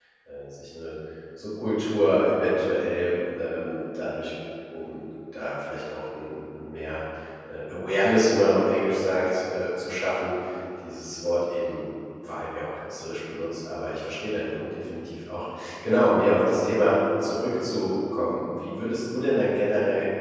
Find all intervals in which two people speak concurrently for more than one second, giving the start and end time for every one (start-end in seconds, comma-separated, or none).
none